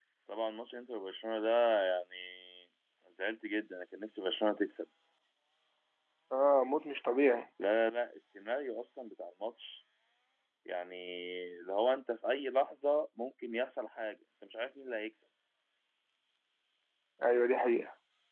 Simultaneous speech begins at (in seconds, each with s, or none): none